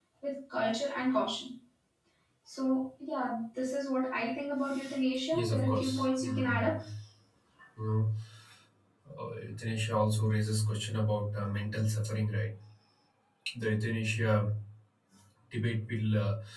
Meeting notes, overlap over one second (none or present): present